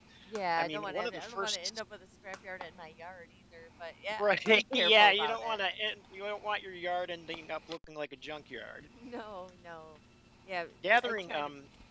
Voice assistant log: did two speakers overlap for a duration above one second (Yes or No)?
Yes